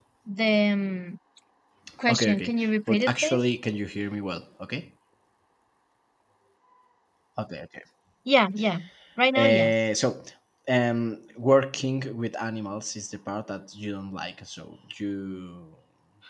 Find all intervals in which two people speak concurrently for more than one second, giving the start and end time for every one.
2.1-3.4

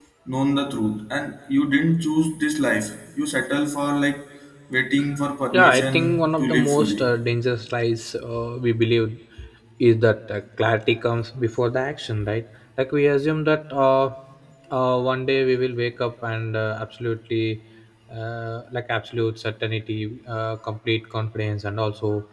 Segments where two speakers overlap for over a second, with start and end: 5.5-7.1

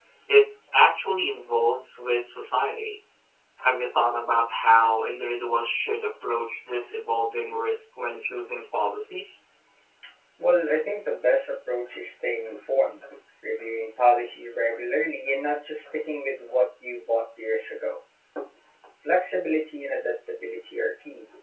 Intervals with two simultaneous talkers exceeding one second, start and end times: none

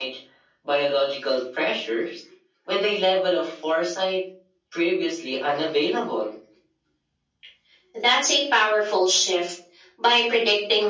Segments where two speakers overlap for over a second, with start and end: none

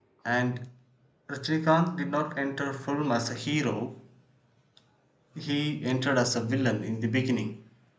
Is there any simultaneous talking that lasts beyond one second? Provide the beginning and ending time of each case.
none

